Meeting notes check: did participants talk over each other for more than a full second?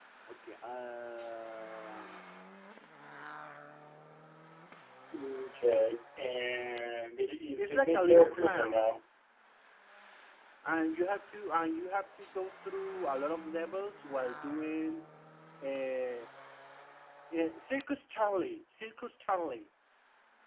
Yes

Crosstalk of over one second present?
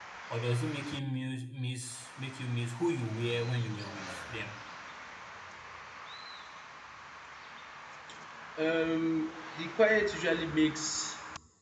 No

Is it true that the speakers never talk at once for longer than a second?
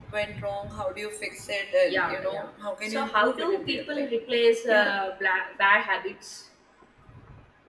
No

